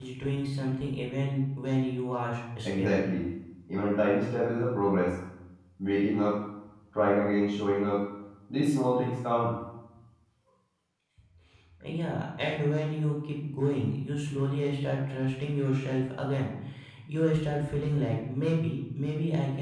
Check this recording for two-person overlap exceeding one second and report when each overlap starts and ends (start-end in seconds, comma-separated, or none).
none